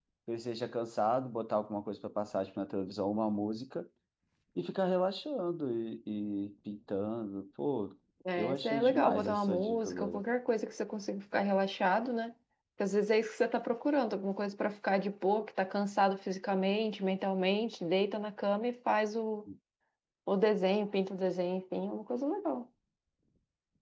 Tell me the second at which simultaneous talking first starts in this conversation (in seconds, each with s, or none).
8.4 s